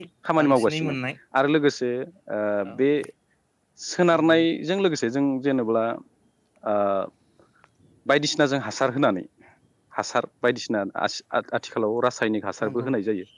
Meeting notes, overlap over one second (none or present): none